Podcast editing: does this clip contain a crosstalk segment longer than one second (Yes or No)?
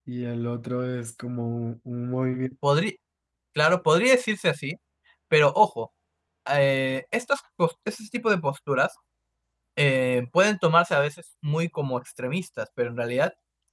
No